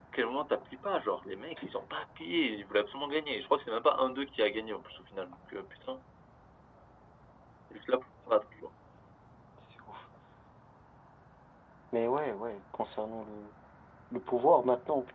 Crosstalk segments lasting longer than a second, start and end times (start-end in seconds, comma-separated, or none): none